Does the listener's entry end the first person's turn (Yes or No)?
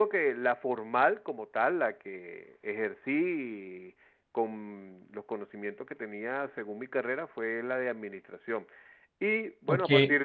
No